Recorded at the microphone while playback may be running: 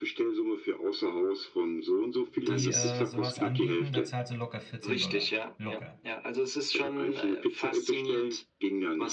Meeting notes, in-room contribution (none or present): present